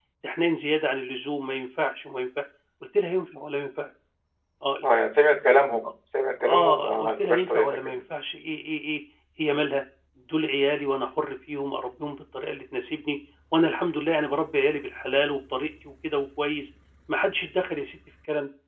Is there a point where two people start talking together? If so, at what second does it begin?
6.4 s

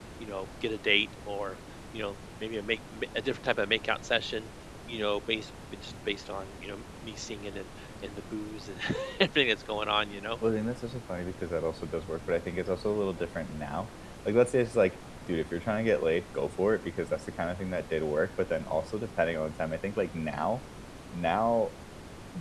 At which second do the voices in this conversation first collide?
none

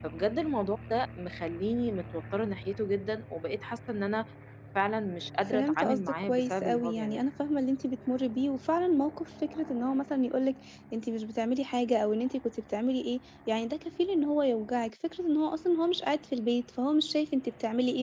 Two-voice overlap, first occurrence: 5.5 s

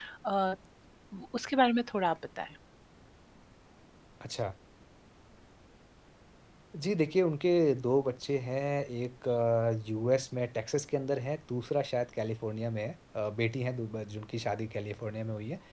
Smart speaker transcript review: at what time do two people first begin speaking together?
none

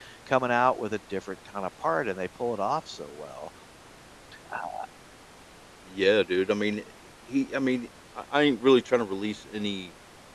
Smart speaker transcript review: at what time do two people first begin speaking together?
none

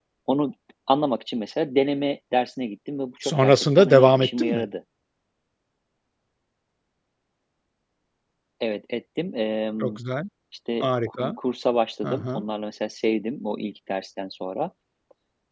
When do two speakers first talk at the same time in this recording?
3.2 s

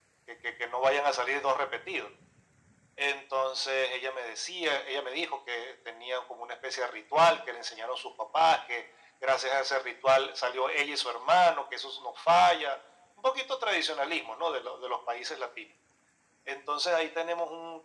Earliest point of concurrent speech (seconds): none

